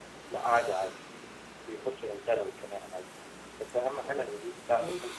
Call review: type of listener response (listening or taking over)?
listening